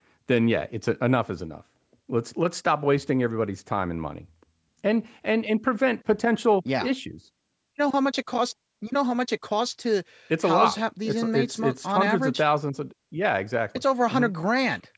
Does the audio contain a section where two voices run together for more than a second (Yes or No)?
Yes